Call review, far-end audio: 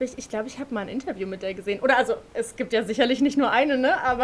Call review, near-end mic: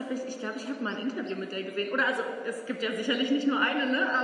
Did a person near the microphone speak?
No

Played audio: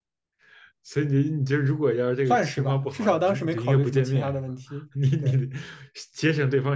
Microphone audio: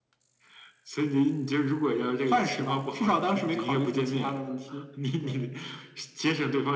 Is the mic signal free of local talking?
Yes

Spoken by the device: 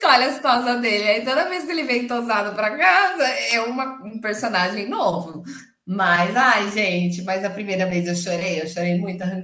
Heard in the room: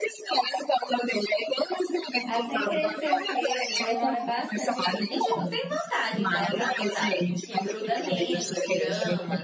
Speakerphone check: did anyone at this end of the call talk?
Yes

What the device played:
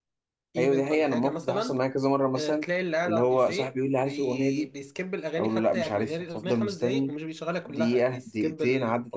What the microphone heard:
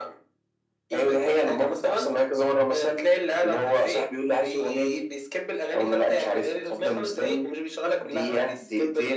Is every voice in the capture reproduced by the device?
Yes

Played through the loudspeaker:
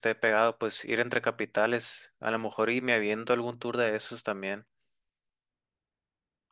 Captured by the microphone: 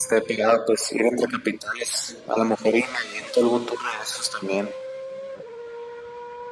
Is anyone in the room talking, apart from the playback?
No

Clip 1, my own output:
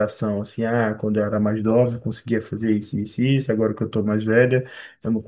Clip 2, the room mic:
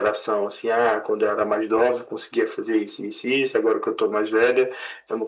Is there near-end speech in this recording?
No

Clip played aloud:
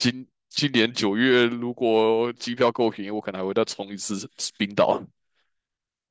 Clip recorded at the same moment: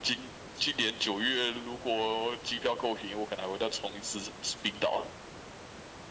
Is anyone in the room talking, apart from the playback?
No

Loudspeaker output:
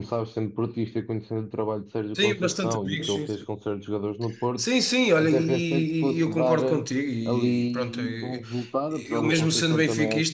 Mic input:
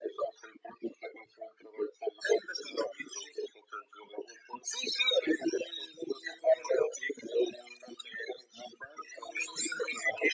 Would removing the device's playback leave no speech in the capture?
Yes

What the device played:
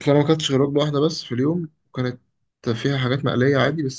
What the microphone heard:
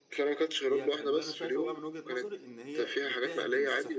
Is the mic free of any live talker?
No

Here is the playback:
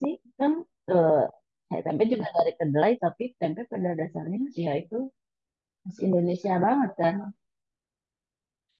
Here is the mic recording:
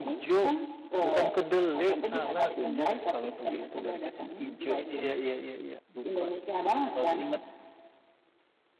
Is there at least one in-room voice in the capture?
Yes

